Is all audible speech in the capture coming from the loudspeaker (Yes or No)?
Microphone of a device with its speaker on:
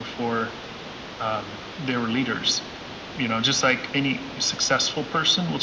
Yes